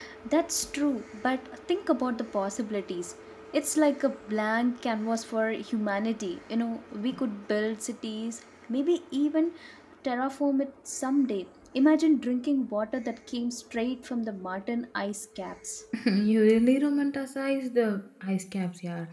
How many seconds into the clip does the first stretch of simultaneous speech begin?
none

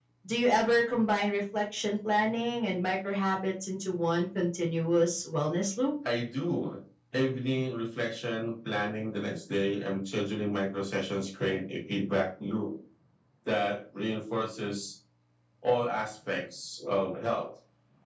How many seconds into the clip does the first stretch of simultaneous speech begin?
none

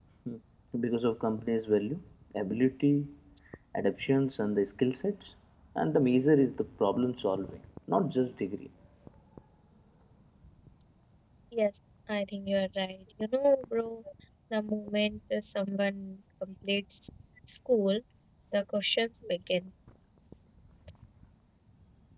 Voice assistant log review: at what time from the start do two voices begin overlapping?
none

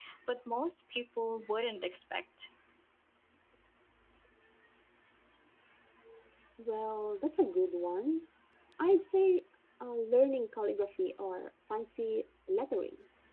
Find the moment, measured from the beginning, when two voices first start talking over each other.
none

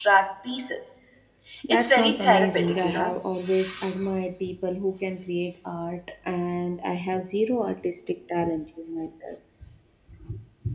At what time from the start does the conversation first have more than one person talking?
1.7 s

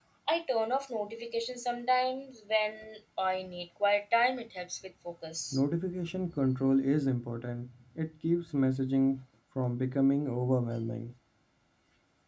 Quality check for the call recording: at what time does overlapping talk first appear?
none

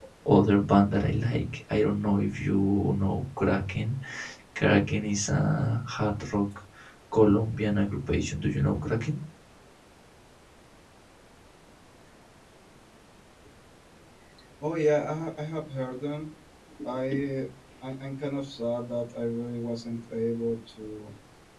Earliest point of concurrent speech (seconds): none

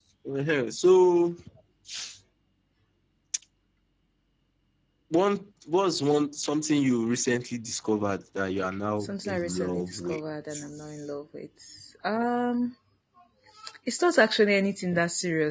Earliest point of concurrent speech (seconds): 9.0 s

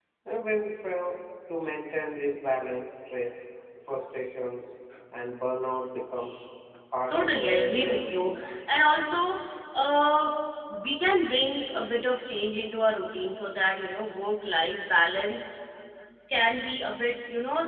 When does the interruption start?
7.1 s

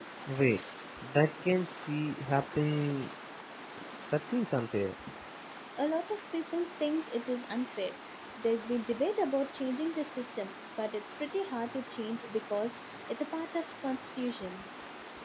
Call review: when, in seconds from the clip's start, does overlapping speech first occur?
none

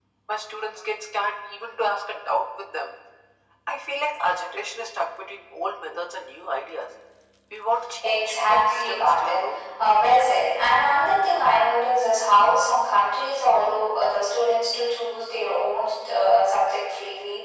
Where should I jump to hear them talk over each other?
8.0 s

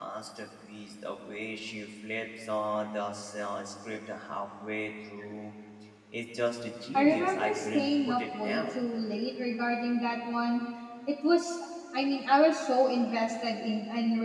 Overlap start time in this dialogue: 6.9 s

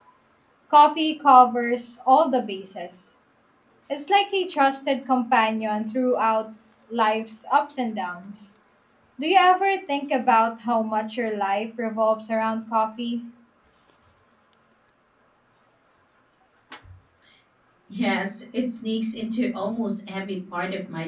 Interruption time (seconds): none

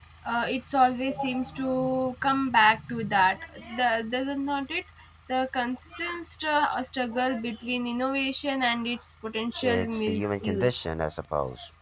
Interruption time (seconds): 9.6 s

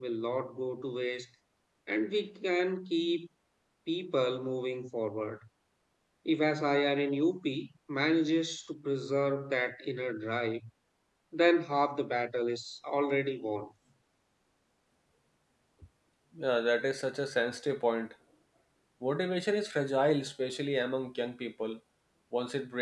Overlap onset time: none

